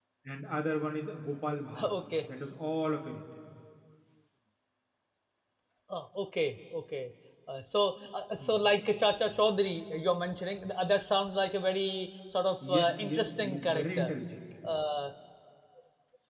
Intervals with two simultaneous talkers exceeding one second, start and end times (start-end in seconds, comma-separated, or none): 12.7-14.1